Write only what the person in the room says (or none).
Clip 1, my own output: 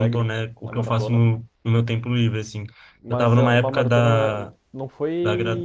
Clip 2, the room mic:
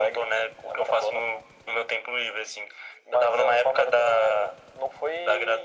none